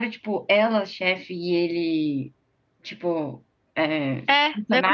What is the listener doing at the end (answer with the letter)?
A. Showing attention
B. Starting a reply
B